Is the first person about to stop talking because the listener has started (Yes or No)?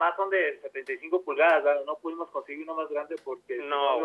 Yes